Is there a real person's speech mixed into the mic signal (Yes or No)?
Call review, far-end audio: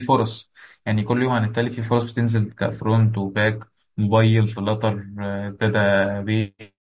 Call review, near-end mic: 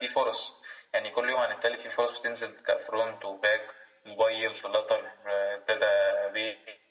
No